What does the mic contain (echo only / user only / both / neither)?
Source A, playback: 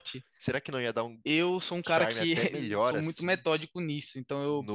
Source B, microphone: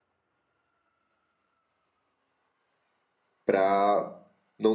user only